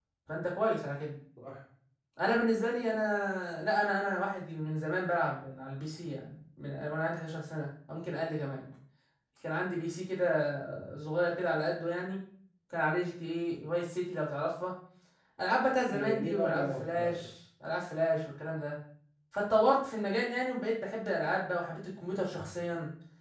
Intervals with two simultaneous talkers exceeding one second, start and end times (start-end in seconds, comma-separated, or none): 15.9-17.3